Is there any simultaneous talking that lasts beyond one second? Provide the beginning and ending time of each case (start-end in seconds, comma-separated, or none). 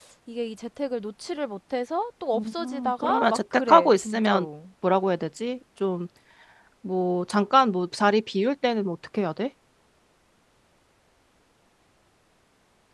2.3-4.5